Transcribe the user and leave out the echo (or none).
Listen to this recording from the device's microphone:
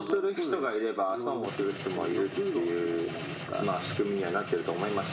none